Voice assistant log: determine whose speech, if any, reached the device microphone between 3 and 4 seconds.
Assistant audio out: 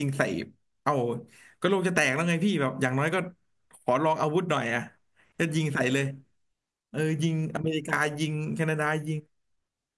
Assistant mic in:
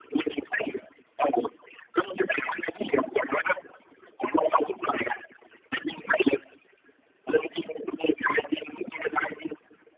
echo only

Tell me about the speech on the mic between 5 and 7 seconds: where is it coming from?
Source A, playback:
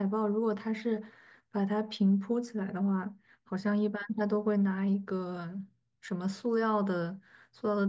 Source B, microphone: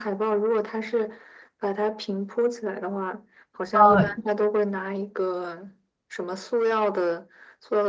echo only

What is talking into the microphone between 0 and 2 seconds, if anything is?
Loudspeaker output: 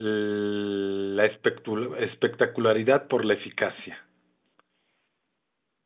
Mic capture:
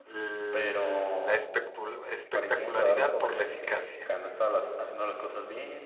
both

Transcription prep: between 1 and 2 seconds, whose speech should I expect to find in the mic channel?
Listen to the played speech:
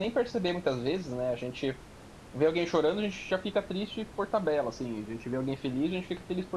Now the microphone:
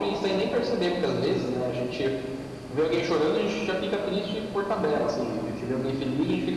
echo only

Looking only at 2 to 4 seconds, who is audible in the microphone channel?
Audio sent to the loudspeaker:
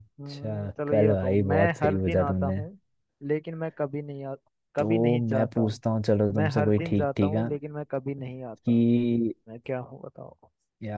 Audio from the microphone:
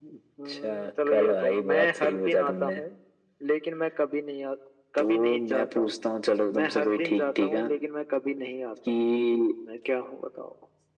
echo only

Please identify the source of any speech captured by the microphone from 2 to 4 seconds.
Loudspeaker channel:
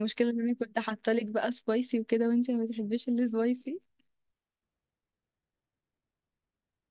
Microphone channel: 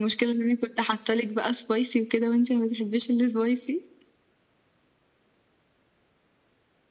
echo only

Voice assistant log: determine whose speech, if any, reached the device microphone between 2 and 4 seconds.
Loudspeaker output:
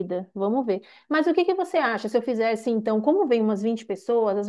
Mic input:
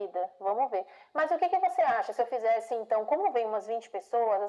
echo only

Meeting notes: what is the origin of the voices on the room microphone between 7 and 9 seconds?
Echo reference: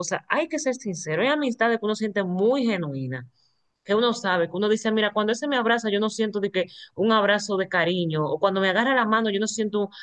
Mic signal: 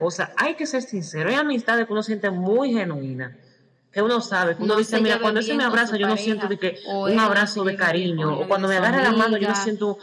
both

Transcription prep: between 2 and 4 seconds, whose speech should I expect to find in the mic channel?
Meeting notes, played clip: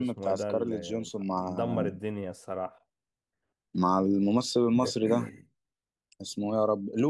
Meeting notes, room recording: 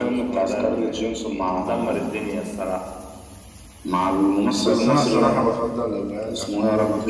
echo only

